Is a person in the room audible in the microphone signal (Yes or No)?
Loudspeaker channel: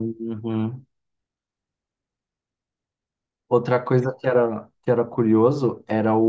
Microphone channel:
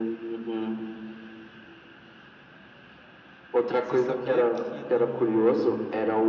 Yes